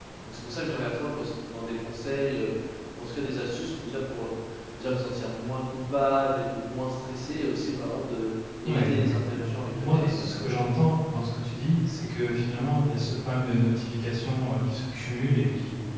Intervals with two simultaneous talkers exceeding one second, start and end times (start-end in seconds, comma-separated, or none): 8.7-10.5